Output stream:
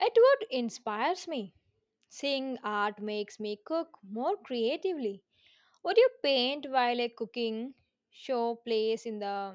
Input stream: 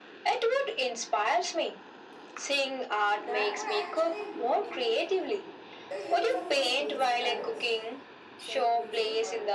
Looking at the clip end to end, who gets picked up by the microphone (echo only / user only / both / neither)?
both